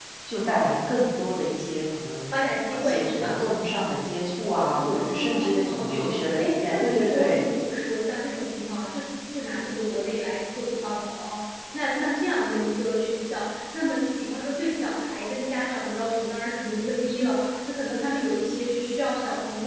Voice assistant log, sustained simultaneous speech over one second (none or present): present